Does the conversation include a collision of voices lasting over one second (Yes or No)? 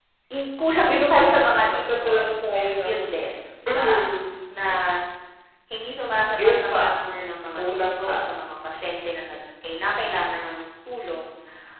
Yes